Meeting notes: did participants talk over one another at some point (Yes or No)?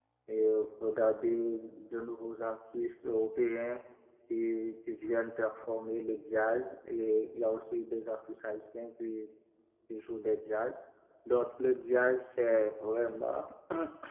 No